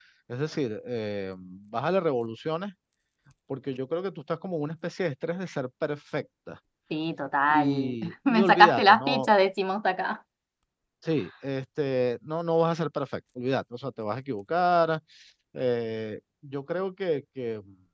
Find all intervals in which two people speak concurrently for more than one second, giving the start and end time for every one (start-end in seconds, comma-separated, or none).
7.5-9.3